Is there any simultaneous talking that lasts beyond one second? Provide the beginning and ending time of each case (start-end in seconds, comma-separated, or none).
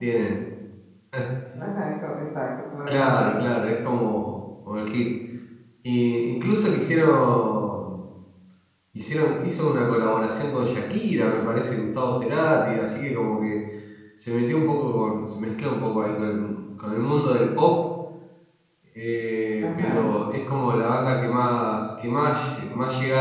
none